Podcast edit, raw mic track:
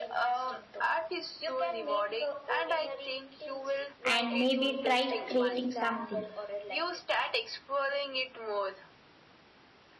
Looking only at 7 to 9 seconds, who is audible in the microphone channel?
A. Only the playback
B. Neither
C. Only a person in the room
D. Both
A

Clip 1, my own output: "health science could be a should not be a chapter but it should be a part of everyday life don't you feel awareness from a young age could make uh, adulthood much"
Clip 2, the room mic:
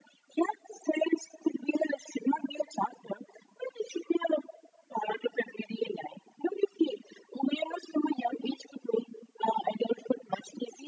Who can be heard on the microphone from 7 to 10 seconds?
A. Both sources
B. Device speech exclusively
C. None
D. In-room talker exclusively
B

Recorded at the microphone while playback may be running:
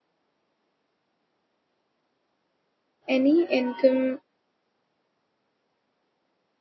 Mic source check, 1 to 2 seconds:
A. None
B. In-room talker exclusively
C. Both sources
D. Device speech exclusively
A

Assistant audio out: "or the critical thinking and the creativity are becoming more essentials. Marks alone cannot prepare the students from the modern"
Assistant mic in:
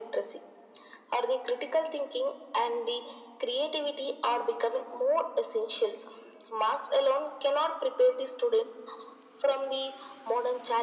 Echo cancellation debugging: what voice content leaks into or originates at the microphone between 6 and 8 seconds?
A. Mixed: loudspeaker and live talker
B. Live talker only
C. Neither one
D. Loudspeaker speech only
D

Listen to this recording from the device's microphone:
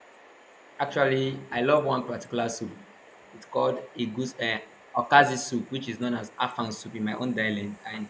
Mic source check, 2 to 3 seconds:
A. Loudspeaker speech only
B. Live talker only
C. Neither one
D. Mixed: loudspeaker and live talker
B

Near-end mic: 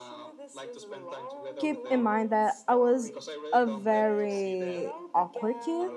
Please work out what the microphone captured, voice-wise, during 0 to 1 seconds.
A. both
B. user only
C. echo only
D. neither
C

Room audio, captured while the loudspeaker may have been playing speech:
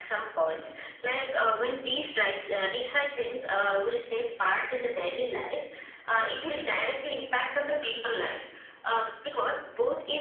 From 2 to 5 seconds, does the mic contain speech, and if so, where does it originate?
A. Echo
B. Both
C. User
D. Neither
A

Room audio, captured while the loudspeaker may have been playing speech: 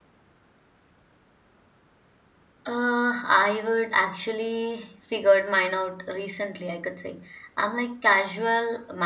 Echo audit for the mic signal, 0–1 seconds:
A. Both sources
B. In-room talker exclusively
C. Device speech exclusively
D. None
D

